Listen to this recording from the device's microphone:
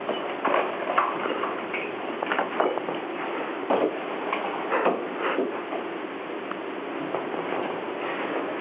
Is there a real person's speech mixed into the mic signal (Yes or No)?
No